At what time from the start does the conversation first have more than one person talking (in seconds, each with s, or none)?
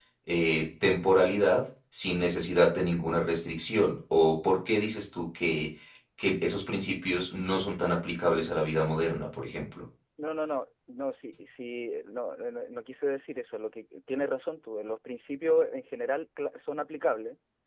none